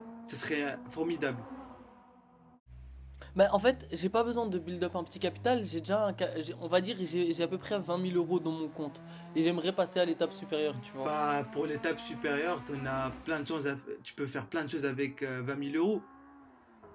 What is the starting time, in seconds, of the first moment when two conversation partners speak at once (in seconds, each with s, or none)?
none